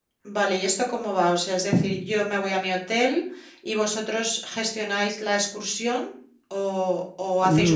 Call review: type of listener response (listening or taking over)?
taking over